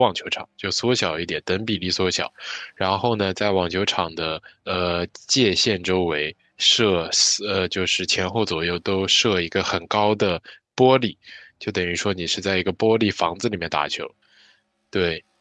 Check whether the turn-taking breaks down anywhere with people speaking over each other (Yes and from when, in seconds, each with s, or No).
No